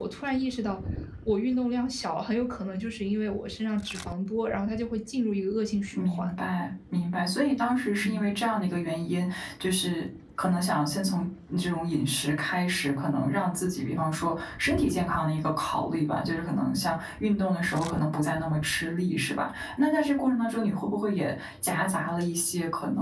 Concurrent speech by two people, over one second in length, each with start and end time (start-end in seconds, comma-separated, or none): none